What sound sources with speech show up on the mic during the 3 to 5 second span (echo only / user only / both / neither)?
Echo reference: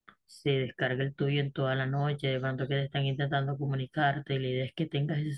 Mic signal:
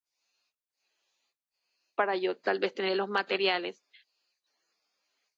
user only